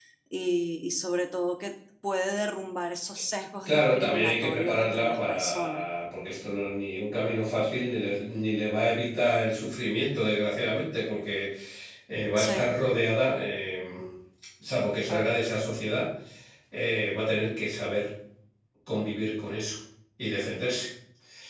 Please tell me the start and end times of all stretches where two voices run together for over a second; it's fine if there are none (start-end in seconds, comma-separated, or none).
3.6-5.8